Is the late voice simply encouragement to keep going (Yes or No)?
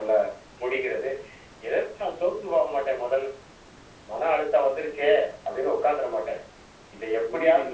No